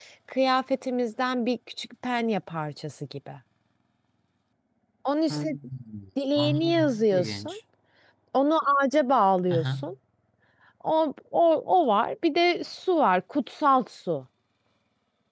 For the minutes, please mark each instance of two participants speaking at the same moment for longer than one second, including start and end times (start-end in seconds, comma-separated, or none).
6.4-7.6